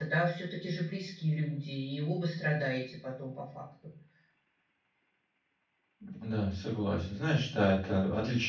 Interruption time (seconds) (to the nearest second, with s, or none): none